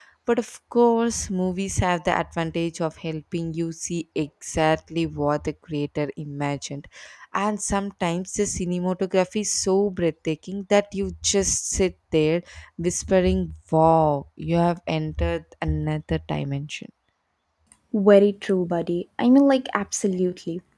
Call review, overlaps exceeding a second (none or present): none